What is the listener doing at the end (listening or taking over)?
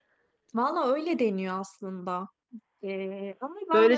taking over